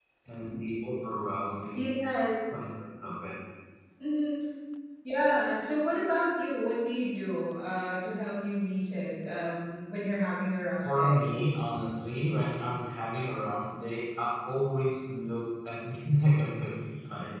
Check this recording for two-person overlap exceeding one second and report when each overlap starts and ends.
none

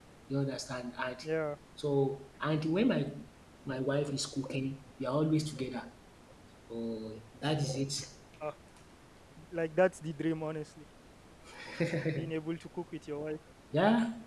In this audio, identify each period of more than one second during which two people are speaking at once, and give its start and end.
none

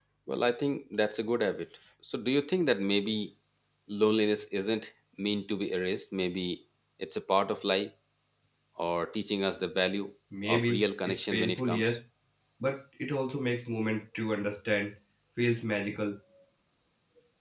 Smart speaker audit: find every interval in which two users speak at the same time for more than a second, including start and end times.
10.5-12.0

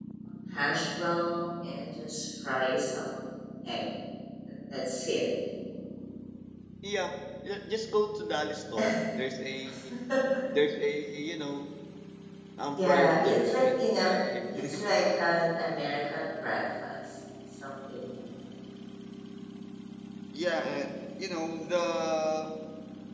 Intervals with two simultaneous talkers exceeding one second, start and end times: 12.8-14.1

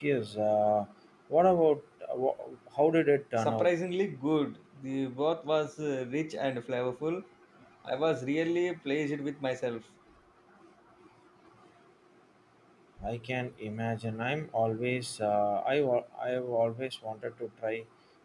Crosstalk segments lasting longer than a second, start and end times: none

